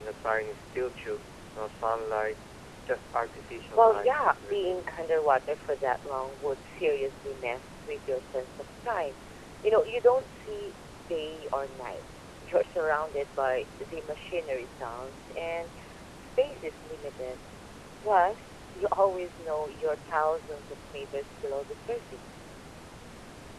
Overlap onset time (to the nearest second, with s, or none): 4 s